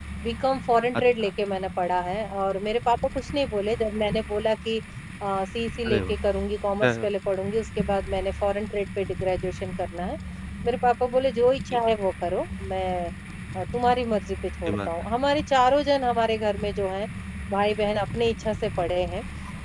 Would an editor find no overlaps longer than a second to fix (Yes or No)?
Yes